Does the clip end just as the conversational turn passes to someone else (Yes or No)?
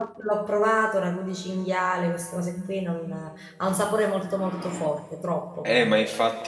Yes